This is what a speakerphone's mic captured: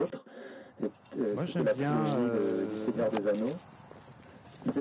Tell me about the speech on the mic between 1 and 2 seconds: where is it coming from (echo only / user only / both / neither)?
both